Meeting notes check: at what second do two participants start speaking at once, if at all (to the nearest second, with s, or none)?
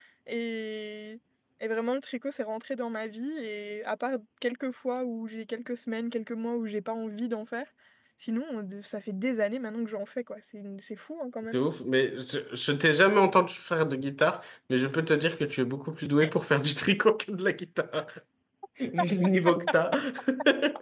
none